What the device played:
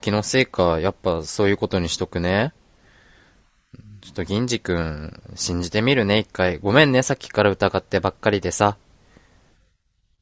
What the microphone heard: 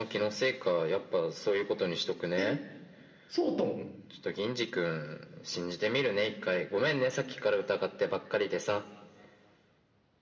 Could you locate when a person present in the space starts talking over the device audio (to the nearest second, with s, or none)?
2 s